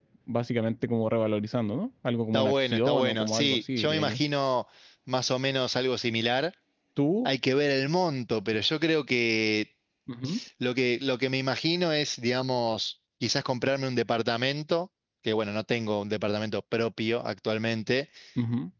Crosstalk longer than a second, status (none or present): present